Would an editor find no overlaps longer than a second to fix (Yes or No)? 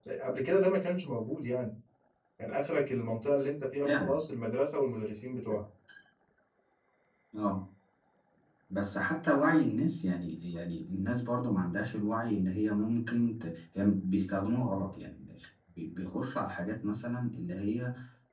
Yes